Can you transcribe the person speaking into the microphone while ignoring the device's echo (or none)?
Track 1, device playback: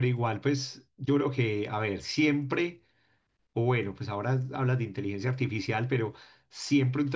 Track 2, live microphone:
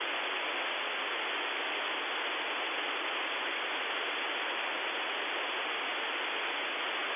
none